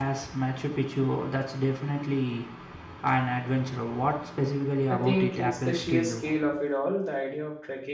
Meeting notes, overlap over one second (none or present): present